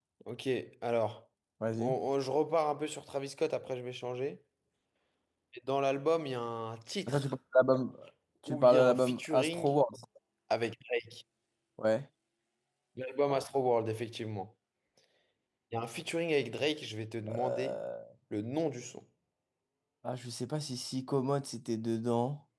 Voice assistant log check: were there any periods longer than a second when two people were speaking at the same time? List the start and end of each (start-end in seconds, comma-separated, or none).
8.5-9.8